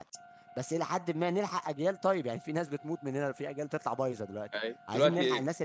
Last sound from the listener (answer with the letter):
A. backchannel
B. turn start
B